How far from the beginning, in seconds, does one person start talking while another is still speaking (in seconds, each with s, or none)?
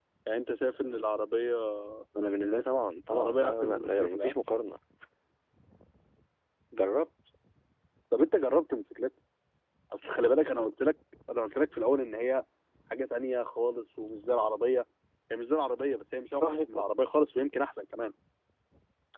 3.1 s